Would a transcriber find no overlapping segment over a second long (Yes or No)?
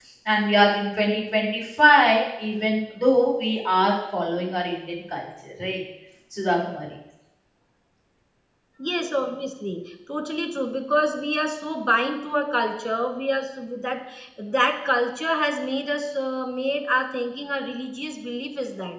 Yes